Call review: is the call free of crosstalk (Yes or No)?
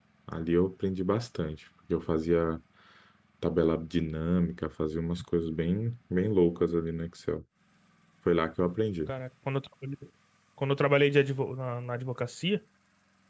Yes